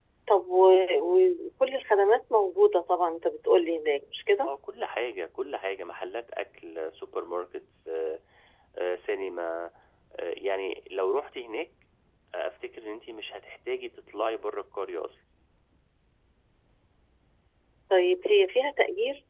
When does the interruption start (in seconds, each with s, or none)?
none